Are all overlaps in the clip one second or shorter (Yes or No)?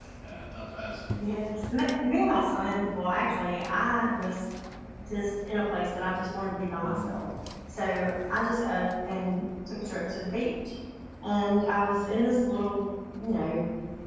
Yes